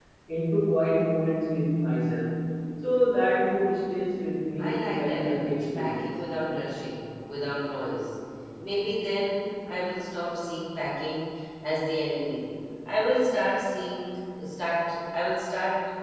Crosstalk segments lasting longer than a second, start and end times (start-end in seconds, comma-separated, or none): 4.6-6.0